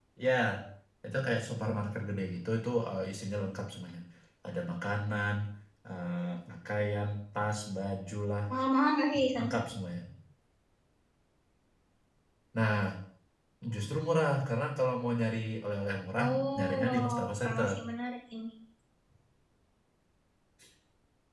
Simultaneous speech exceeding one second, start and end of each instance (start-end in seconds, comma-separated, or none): 16.2-17.8